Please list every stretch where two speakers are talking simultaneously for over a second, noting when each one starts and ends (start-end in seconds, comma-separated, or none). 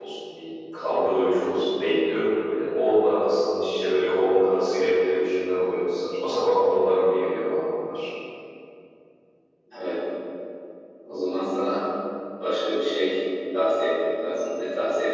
none